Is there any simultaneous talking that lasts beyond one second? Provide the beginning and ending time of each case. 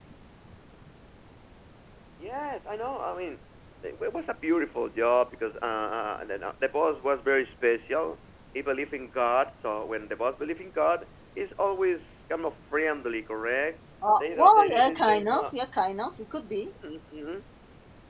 14.2-15.5

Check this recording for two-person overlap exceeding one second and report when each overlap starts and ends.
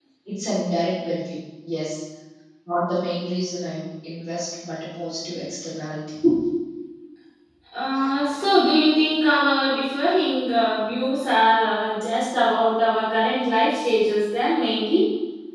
none

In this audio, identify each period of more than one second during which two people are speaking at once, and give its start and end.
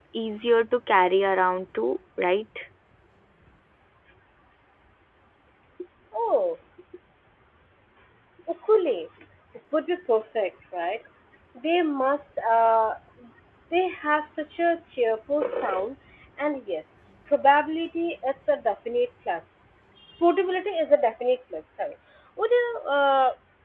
none

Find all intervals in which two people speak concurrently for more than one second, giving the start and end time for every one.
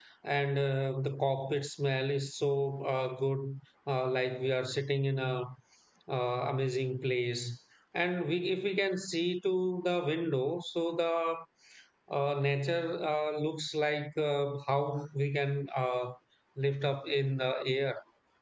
none

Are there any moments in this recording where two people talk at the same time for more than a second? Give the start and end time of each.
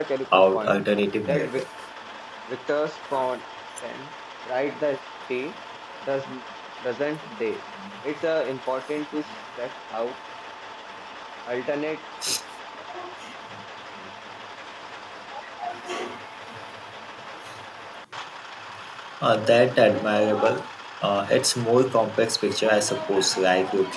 none

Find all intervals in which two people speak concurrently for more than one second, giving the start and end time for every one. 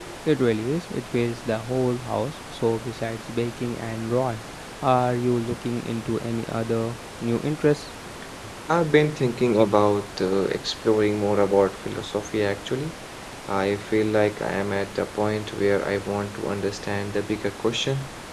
none

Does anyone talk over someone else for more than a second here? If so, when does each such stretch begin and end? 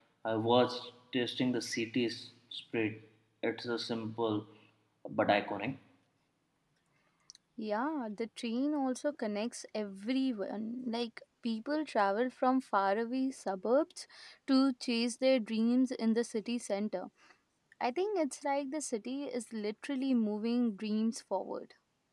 none

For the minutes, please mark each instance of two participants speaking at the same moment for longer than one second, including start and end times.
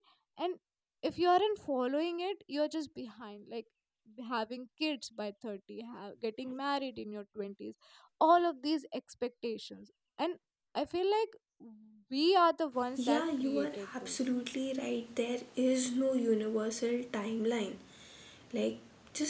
13.0-14.2

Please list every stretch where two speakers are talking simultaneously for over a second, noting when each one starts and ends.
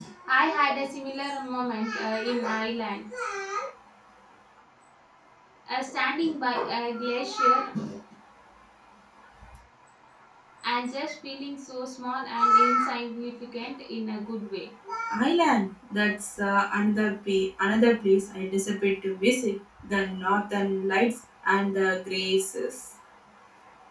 none

